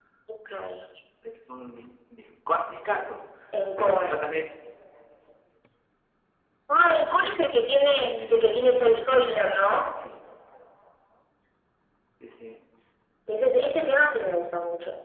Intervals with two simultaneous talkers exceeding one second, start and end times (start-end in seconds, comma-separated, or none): 7.9-9.7